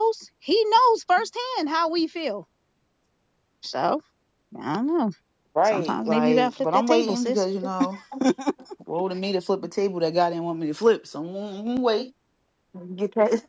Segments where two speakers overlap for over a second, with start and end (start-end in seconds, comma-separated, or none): 5.7-7.4